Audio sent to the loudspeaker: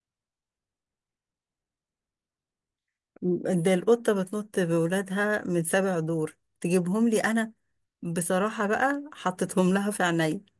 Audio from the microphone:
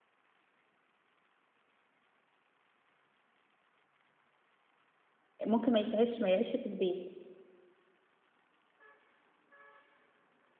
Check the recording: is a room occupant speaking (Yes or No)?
Yes